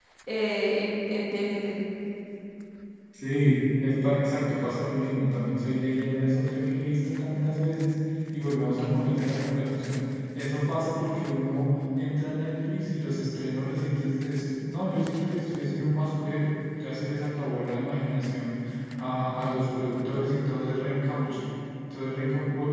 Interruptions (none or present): none